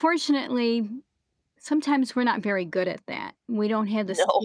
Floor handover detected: No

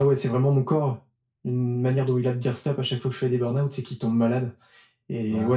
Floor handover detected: No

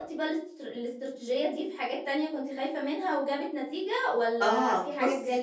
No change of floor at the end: No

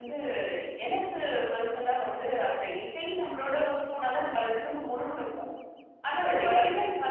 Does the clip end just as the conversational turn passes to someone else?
No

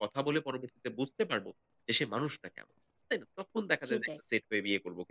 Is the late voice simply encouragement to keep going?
Yes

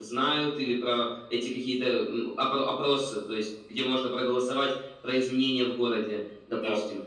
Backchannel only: Yes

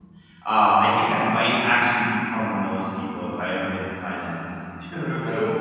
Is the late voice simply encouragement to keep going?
No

